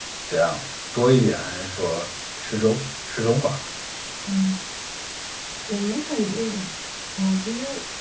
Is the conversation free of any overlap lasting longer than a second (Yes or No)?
Yes